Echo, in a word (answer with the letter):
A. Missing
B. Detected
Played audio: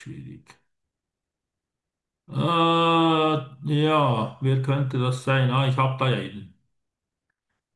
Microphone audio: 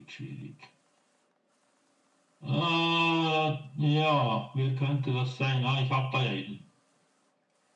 B